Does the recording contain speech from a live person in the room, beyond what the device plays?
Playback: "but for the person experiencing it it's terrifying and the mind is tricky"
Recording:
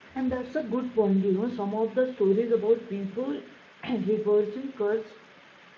Yes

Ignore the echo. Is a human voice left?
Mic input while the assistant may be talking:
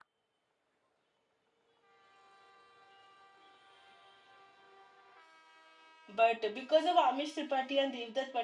Yes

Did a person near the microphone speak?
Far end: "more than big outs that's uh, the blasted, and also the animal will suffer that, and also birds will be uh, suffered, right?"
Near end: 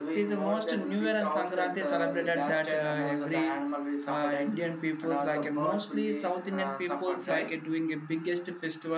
Yes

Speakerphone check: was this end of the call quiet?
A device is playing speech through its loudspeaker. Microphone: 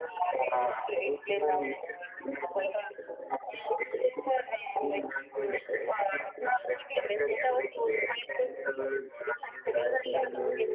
Yes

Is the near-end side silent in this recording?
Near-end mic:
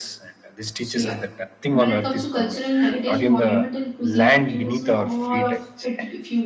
No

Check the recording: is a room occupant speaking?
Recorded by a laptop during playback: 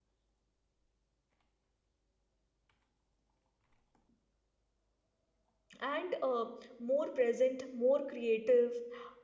Yes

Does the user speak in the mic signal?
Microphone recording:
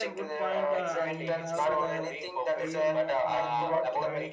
Yes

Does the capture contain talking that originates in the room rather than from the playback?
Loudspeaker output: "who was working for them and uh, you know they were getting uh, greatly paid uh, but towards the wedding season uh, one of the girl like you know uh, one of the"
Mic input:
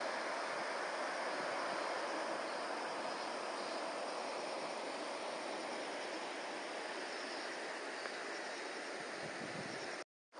No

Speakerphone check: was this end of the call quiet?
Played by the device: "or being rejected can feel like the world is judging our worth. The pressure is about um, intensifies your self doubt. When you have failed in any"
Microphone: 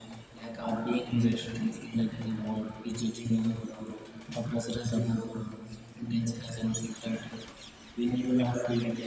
No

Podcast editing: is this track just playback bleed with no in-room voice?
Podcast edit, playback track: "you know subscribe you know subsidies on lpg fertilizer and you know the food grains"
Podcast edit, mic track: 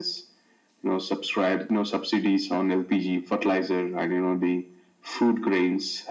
Yes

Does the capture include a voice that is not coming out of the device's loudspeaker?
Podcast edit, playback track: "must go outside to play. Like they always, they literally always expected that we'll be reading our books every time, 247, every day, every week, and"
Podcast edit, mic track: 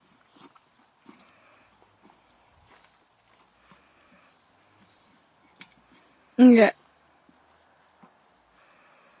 Yes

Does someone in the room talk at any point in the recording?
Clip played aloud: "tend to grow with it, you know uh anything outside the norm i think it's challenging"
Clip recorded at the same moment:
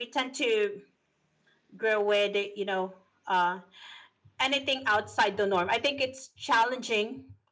No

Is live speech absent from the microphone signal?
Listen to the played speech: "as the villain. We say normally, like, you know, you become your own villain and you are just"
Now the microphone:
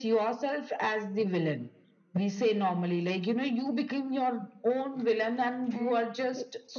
No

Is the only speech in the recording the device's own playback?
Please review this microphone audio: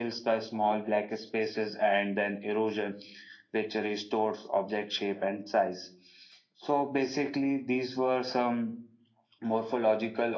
Yes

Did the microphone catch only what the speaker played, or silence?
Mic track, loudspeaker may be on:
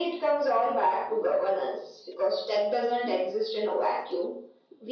Yes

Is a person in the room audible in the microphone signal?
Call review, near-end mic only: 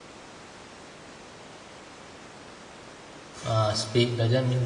Yes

